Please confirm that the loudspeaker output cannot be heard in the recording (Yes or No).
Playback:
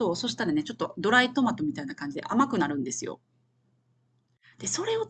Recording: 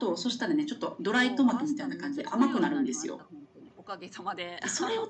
No